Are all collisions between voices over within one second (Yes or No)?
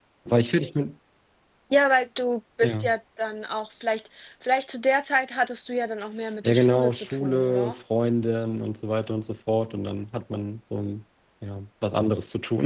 No